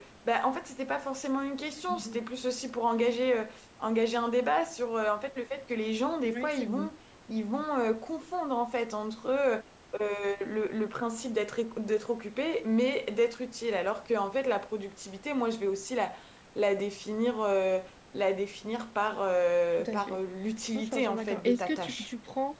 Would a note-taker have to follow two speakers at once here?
Yes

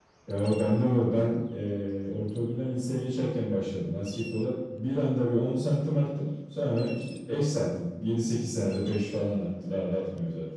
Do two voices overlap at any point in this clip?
No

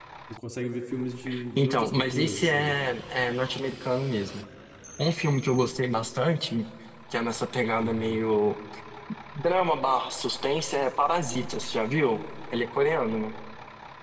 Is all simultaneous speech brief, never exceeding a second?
No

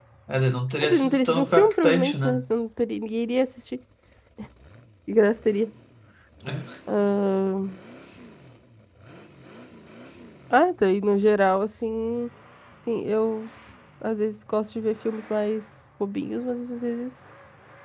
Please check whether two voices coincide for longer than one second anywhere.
Yes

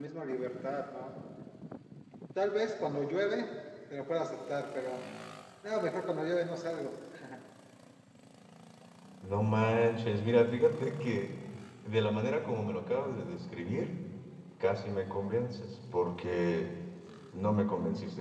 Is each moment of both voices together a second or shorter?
Yes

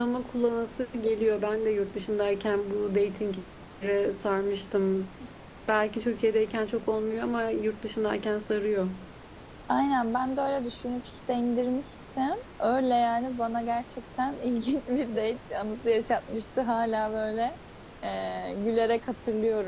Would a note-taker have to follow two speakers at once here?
No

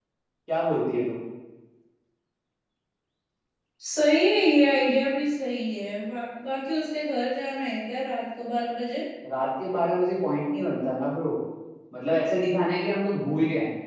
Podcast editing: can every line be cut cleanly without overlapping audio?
Yes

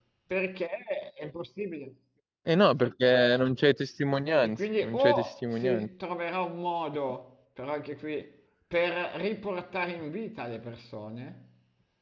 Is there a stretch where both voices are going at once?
Yes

